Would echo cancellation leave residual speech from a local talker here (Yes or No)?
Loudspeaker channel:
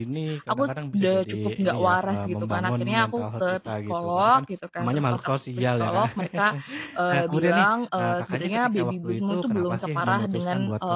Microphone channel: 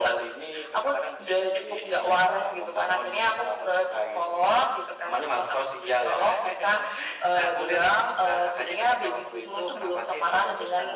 No